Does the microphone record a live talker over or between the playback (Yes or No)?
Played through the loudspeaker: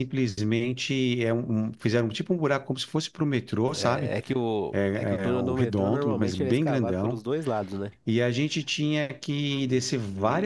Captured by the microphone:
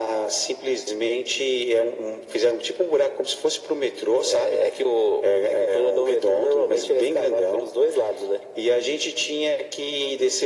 No